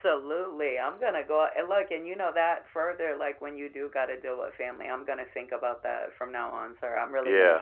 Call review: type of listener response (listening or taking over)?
taking over